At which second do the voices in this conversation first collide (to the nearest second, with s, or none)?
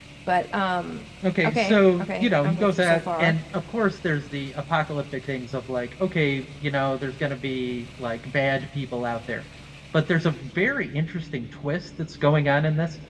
1 s